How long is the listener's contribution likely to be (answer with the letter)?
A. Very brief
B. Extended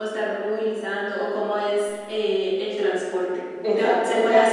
A